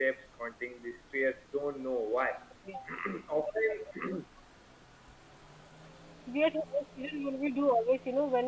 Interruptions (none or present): none